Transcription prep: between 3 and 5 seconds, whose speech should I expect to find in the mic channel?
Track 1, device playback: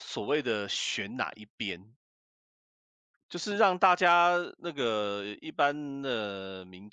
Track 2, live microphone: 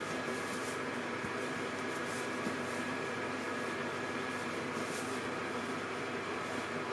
neither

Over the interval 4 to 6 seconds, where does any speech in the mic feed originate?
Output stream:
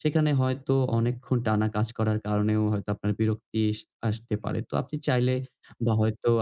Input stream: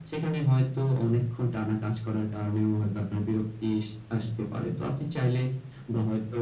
echo only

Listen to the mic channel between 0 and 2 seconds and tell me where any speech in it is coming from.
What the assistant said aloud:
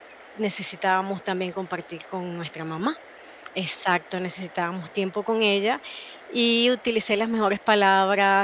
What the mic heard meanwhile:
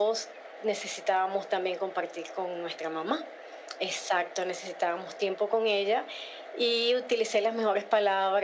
echo only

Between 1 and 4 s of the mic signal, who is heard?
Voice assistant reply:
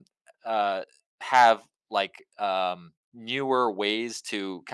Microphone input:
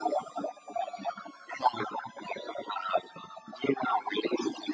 echo only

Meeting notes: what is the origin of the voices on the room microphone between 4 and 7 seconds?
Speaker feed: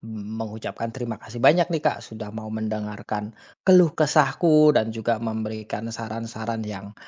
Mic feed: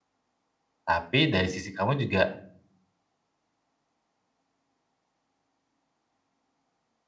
neither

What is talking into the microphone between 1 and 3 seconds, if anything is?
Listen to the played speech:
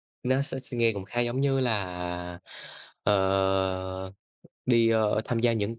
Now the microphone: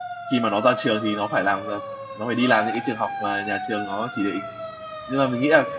user only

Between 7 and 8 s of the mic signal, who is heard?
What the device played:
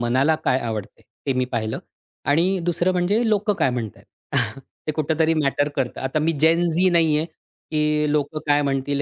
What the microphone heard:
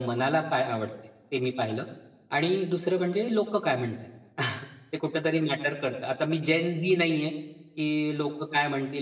echo only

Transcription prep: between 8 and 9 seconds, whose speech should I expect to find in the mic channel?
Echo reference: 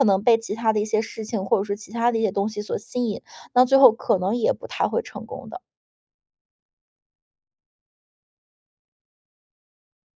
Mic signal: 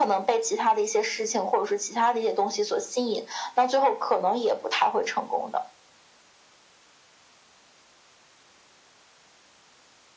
neither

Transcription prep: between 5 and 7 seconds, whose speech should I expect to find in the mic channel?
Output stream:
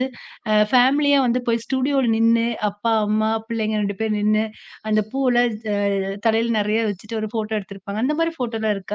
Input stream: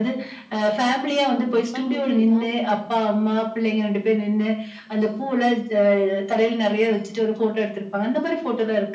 echo only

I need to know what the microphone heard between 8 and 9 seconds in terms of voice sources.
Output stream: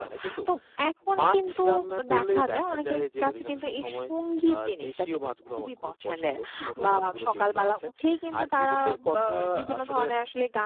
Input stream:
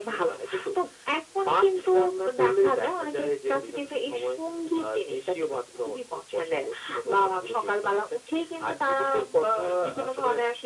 echo only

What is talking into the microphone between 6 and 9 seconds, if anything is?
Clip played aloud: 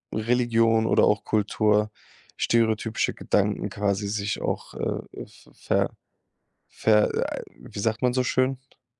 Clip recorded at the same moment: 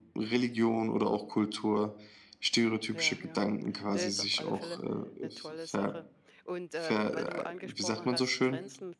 both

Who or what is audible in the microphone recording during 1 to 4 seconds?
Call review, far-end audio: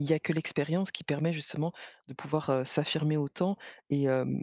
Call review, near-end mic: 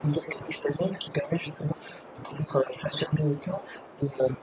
echo only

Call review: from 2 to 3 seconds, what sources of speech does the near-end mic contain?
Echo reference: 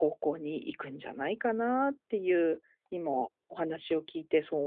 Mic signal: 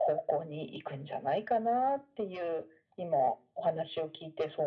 echo only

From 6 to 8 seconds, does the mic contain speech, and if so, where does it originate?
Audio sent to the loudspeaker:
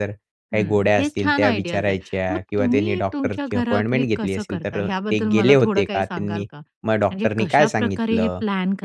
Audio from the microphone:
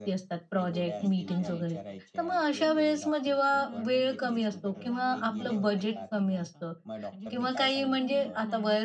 both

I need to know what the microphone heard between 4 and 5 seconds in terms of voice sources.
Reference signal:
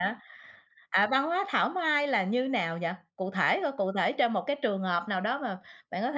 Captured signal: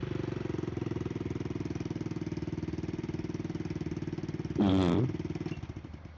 user only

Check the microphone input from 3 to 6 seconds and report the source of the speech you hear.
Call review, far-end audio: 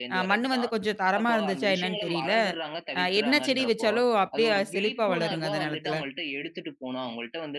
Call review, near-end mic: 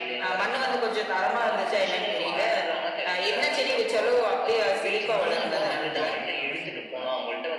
both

